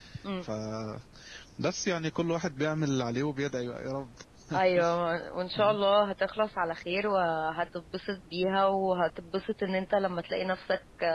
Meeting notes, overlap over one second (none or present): none